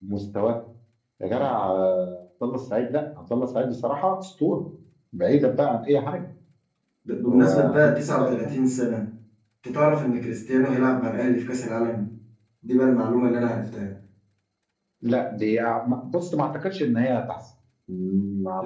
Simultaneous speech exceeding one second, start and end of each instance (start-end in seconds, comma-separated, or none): 7.3-8.6